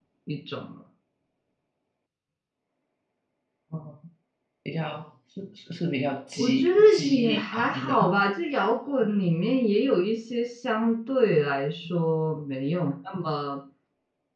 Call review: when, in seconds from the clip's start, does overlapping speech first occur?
6.4 s

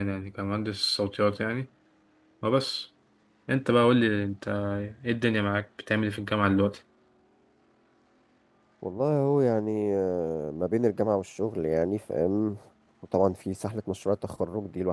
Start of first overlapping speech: none

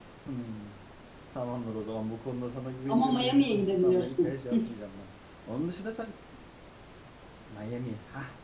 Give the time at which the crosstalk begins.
2.9 s

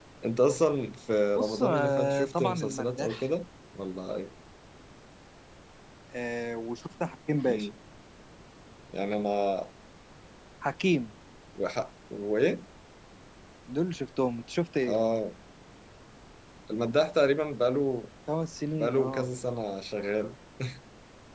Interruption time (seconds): 1.4 s

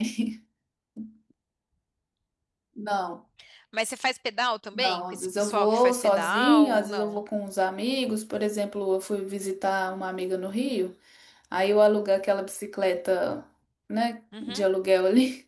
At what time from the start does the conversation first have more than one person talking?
4.7 s

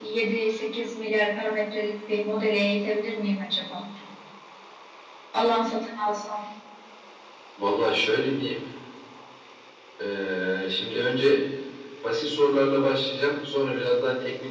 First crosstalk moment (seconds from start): none

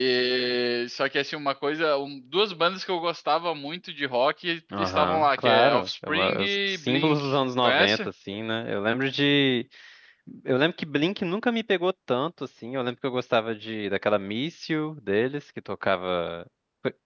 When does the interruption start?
4.8 s

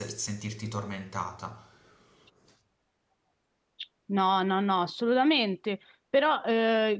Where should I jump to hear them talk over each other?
none

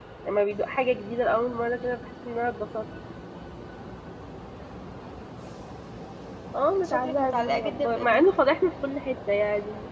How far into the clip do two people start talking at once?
6.8 s

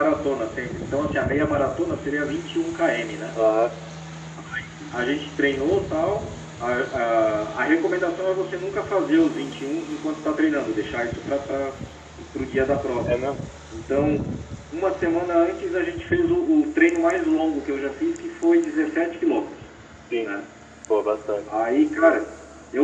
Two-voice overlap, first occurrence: none

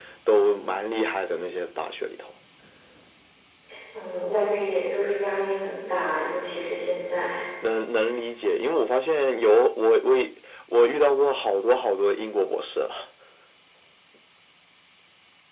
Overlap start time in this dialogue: none

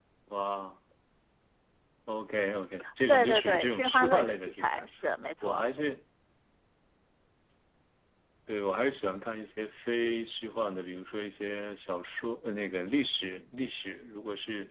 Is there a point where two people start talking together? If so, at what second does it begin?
3.1 s

